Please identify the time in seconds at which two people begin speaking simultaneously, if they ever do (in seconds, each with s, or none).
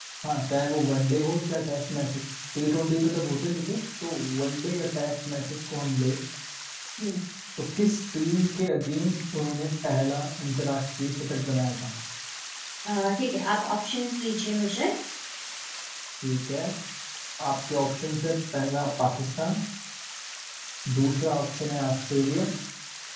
none